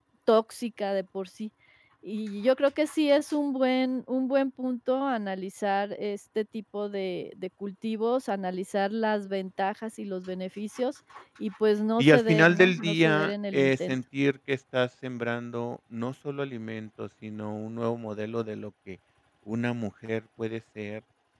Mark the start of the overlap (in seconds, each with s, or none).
12.0 s